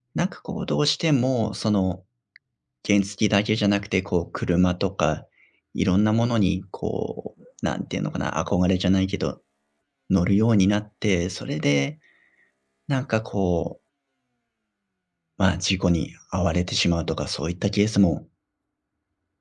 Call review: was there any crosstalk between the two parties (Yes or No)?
No